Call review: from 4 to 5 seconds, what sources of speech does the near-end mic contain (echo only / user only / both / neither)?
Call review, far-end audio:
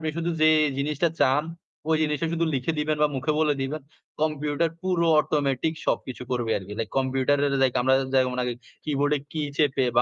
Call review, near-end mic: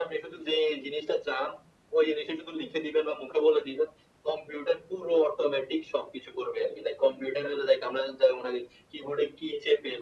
echo only